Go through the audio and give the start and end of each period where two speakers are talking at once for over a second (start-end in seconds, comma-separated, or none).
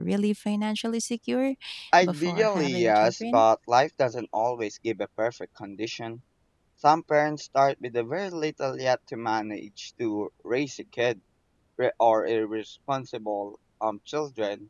2.0-3.4